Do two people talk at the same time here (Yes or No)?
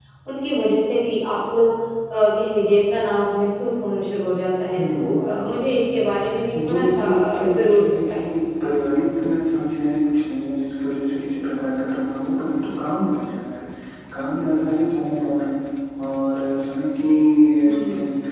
Yes